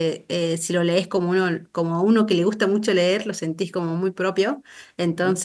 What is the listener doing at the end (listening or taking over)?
listening